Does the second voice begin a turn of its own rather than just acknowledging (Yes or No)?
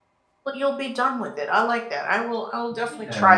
Yes